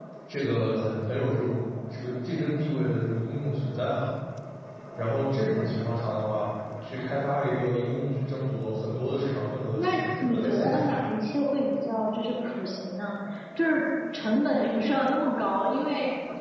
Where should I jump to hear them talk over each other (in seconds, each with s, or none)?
9.8 s